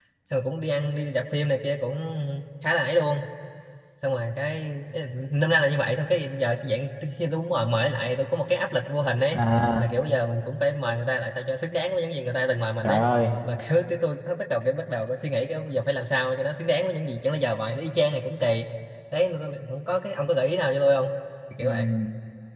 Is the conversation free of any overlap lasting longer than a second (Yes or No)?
Yes